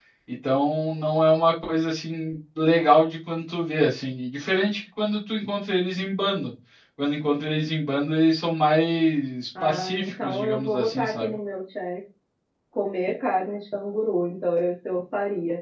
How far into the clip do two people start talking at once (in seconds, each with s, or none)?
9.6 s